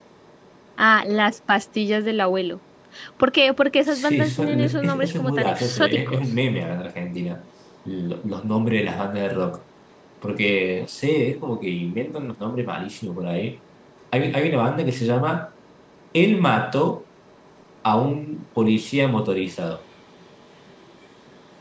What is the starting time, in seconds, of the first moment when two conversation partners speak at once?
3.9 s

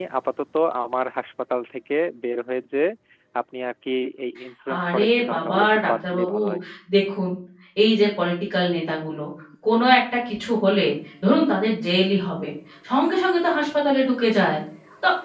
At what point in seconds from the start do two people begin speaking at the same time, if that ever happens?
4.7 s

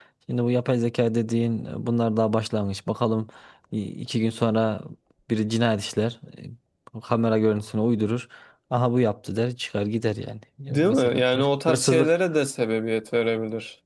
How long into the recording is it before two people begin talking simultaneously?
10.7 s

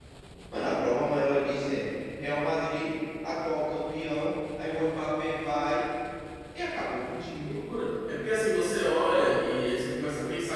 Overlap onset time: none

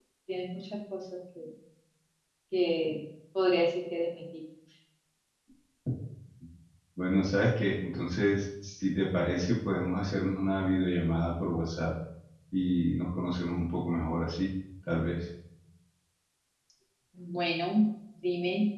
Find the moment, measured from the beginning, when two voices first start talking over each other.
none

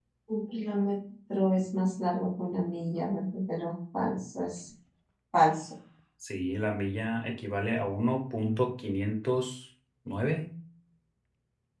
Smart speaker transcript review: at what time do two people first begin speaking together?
none

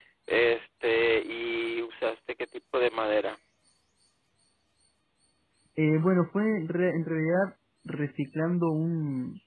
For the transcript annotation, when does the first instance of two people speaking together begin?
none

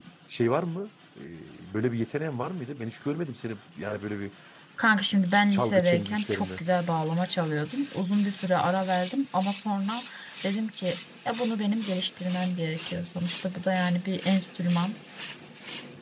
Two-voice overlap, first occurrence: 5.2 s

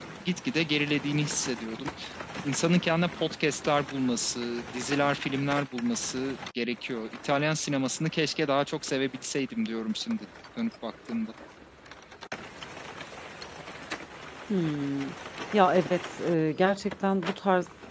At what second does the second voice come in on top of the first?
none

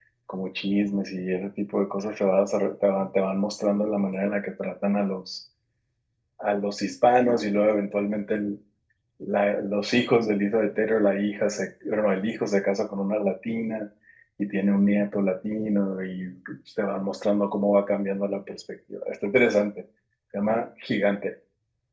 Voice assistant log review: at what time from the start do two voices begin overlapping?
none

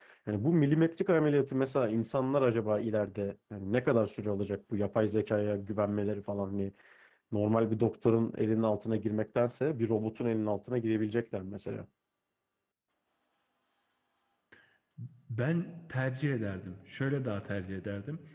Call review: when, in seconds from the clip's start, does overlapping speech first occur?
none

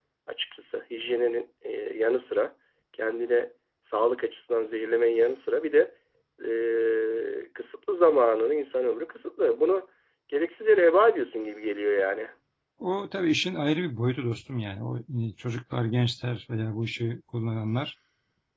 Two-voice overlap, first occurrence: none

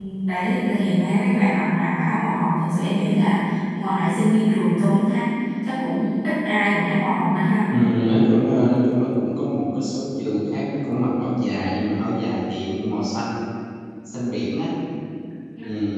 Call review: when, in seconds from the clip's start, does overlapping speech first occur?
none

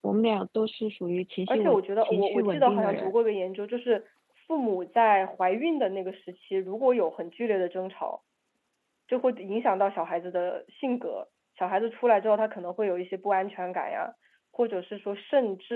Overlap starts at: 1.5 s

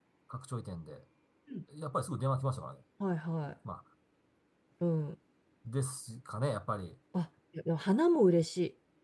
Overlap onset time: none

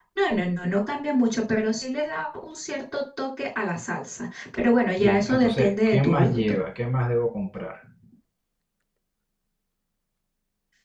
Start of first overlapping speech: 5.0 s

